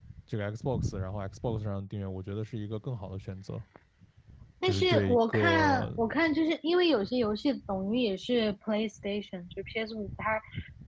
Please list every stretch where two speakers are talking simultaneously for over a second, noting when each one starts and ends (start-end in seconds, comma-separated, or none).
4.6-5.9